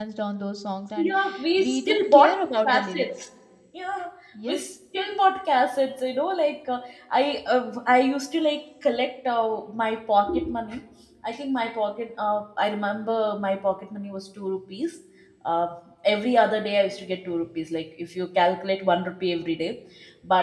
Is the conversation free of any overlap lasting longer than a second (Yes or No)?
No